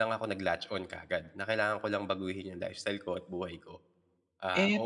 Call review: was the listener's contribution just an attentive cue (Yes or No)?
No